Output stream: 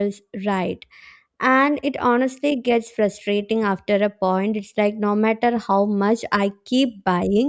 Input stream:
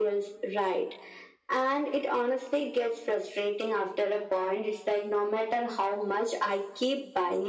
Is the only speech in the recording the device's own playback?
Yes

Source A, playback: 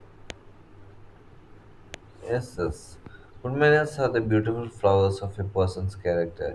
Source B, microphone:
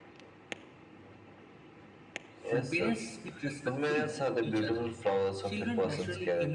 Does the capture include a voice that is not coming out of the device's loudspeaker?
Yes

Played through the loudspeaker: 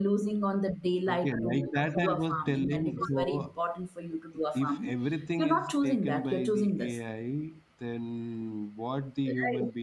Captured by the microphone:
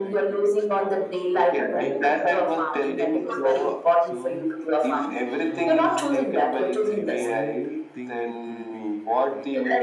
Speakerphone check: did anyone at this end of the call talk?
Yes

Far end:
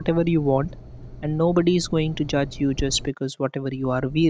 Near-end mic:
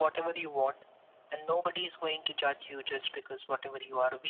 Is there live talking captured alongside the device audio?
No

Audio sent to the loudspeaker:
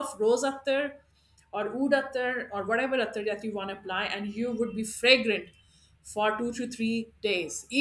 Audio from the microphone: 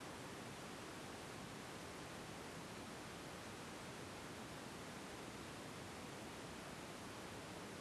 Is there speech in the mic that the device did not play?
No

